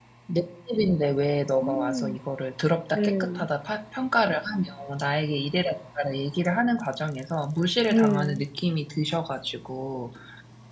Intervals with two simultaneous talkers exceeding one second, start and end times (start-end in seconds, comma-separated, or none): none